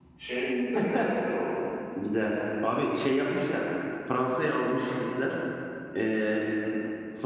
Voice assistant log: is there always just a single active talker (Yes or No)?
Yes